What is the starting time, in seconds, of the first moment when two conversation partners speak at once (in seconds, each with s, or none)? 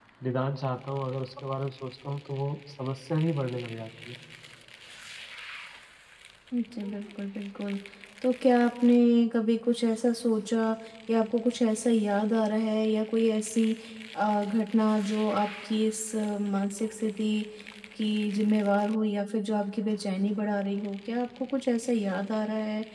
none